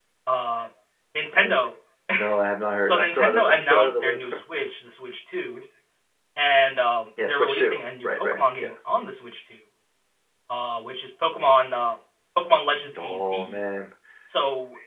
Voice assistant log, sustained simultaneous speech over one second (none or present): present